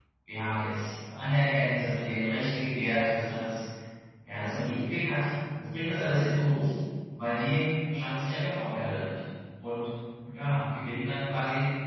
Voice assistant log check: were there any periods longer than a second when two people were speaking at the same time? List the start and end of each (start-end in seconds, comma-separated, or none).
none